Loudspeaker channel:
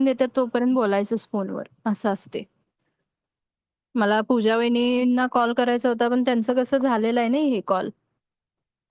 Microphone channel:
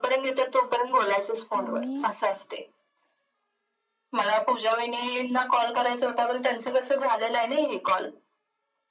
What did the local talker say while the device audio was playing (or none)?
मम्मी